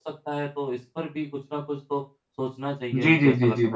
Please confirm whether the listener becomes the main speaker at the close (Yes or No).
Yes